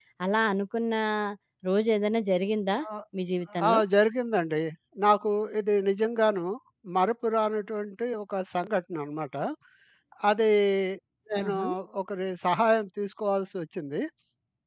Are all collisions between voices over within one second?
Yes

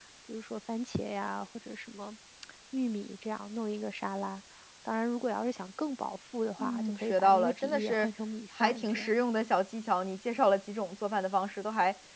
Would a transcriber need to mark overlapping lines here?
Yes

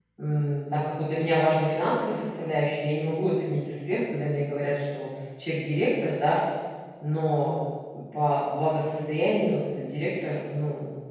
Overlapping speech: No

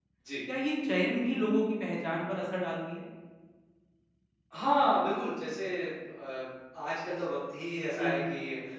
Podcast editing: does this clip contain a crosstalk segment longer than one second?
No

